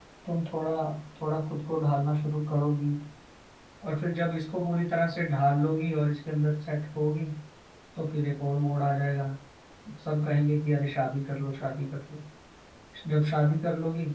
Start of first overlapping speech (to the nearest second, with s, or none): none